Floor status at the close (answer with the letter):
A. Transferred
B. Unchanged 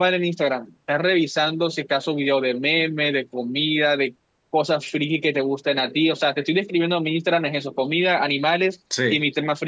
B